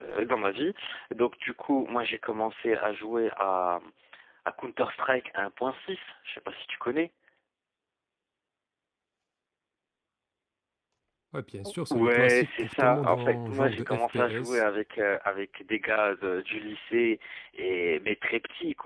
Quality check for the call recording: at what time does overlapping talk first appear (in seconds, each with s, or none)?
11.9 s